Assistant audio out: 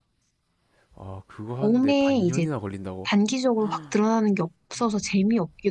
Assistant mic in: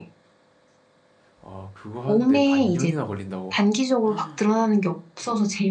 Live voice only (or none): none